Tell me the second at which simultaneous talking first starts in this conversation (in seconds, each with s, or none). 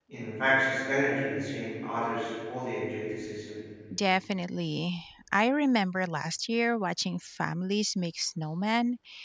none